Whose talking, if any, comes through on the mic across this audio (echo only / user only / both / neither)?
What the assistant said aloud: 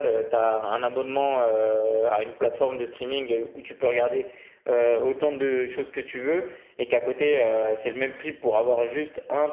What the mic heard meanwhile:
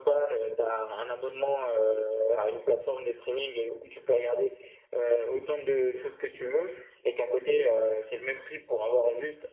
echo only